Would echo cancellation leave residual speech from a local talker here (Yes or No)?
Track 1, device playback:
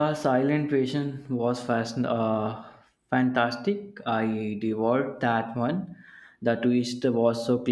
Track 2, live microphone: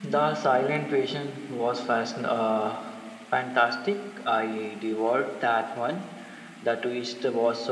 No